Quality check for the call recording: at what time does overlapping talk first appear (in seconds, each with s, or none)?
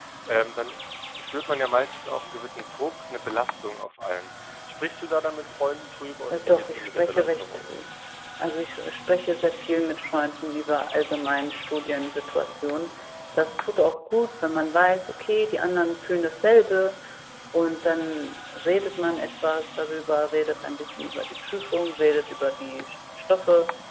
6.3 s